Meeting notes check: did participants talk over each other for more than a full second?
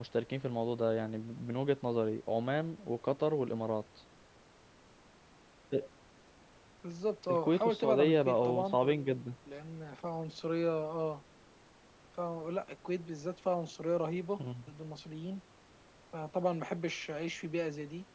Yes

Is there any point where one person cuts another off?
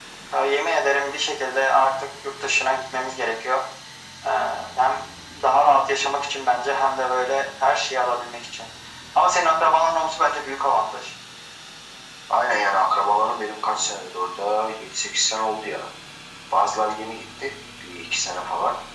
No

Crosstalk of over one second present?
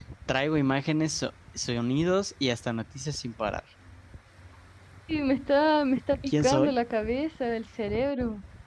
No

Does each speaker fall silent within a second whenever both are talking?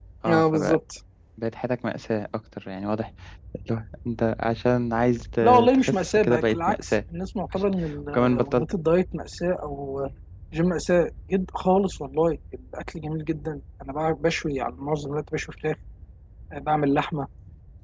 No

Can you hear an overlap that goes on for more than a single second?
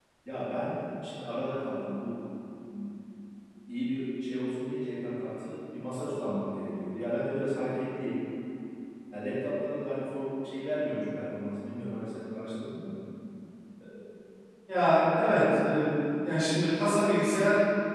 No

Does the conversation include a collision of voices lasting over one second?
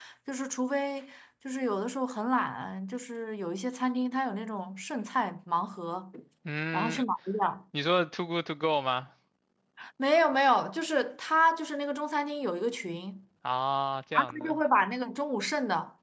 No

